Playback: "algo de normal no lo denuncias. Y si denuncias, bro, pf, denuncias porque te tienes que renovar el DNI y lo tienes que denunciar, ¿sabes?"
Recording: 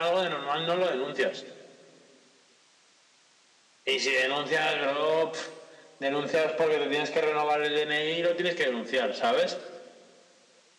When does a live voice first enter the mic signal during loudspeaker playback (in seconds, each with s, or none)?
none